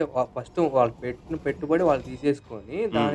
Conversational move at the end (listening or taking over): listening